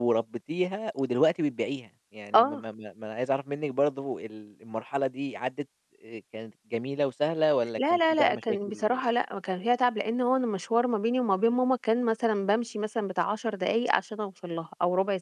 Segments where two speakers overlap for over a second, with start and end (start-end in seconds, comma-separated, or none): 7.8-9.0